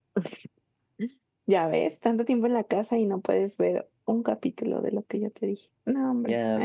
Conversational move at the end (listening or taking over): taking over